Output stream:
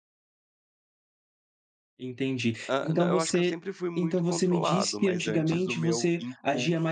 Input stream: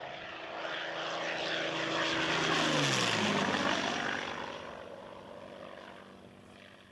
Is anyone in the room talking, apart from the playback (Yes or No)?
No